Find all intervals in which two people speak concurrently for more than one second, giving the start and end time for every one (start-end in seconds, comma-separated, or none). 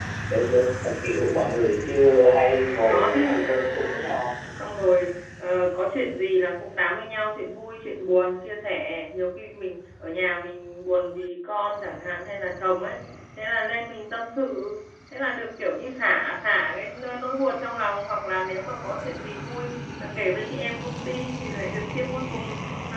2.6-4.2